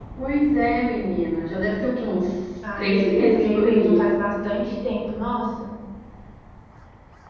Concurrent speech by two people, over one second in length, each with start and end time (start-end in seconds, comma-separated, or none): 2.8-4.0